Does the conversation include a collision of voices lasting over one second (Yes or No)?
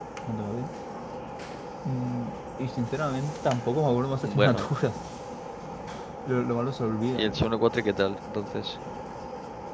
No